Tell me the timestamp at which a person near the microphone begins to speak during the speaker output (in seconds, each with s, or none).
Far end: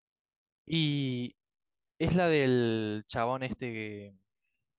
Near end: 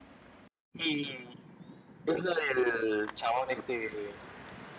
none